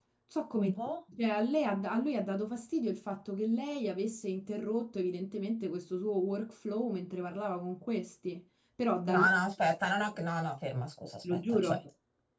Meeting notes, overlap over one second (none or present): none